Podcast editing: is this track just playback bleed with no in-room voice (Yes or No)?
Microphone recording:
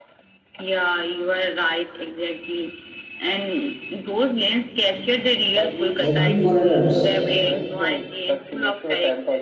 No